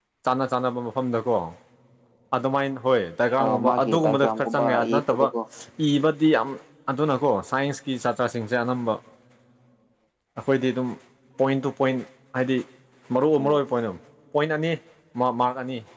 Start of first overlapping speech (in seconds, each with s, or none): 3.4 s